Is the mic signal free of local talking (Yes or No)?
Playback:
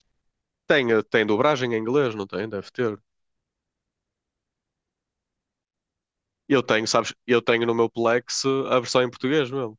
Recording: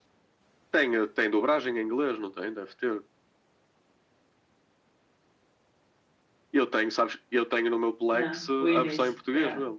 No